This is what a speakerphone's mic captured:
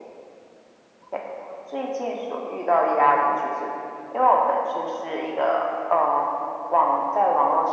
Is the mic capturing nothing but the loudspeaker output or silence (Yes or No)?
Yes